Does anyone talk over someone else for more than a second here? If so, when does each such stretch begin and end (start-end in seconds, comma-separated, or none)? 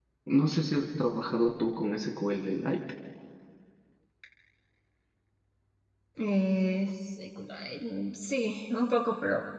none